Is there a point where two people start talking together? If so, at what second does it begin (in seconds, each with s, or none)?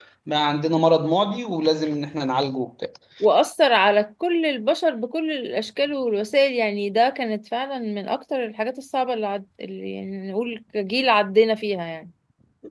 none